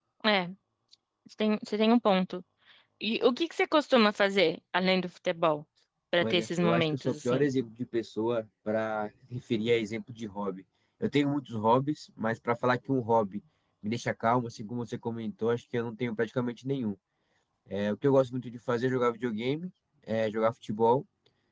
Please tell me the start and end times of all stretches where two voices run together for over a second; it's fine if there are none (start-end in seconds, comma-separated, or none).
6.2-7.5